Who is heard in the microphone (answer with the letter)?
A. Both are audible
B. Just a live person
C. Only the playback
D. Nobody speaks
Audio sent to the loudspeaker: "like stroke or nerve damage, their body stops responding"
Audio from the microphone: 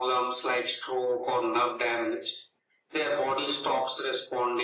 C